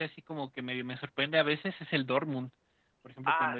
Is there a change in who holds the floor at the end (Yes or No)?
No